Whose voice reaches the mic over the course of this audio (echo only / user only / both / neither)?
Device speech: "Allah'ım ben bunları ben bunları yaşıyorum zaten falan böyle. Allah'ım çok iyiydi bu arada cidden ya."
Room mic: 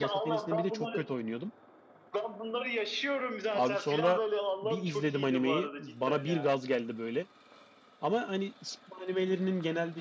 both